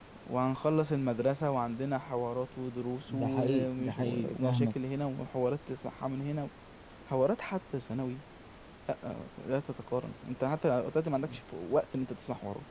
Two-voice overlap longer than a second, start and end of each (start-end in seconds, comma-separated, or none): 3.1-4.7